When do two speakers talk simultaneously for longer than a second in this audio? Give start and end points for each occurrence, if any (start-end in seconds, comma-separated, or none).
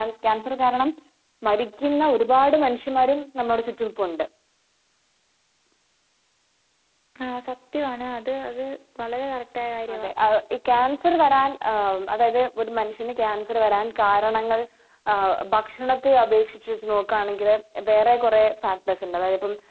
none